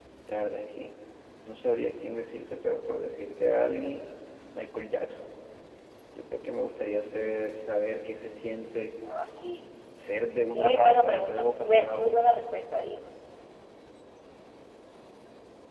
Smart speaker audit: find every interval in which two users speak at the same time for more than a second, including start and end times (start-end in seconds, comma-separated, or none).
10.5-12.2